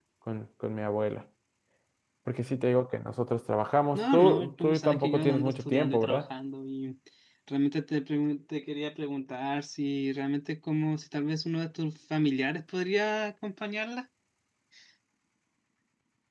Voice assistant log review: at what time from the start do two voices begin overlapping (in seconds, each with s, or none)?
3.9 s